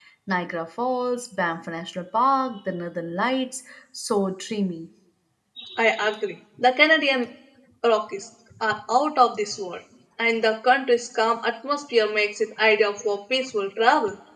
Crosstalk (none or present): none